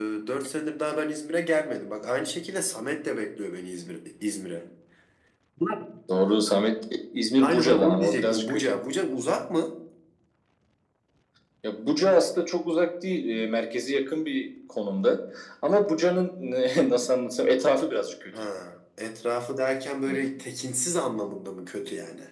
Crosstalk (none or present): present